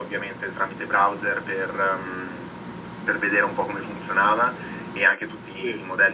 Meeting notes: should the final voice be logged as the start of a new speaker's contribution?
No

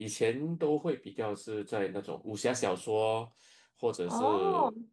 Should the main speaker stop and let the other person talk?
No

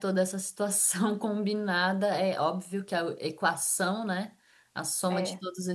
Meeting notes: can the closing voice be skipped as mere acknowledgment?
Yes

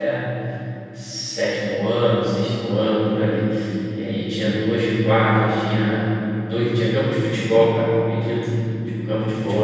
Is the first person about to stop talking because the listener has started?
Yes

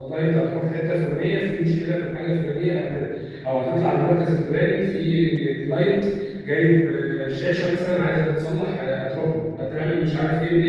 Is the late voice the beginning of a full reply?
No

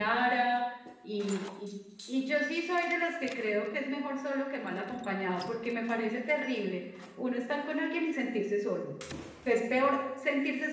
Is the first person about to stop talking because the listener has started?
No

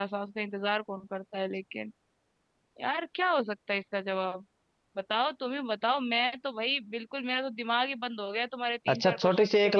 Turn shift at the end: Yes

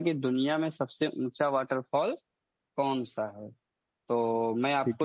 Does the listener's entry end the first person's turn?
No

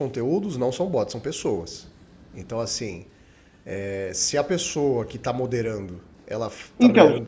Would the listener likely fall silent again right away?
Yes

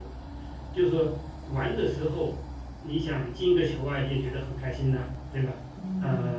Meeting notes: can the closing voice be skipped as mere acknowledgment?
No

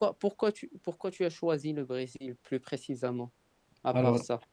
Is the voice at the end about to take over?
Yes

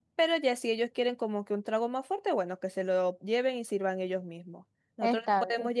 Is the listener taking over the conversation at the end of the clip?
No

